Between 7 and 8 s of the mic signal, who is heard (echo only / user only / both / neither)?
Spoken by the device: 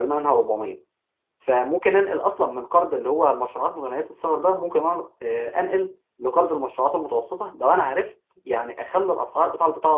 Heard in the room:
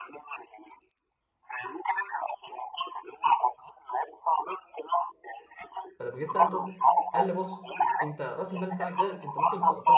both